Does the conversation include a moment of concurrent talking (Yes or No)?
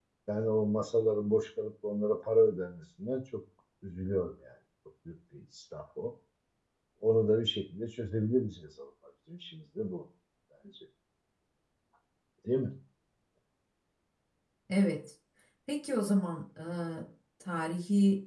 No